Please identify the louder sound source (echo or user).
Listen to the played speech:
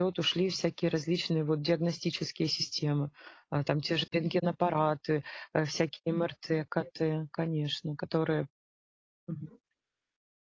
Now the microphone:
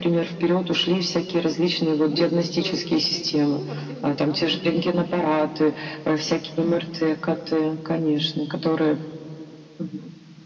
echo